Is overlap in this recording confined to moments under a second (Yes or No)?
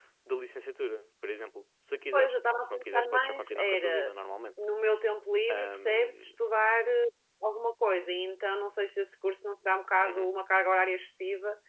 No